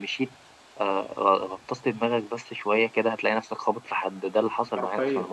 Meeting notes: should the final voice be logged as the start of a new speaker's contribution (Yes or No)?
Yes